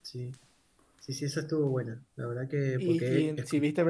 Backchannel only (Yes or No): No